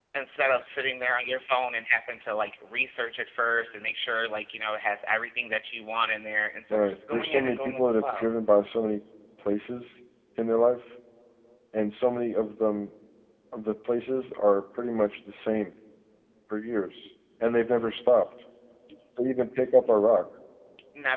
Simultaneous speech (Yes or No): Yes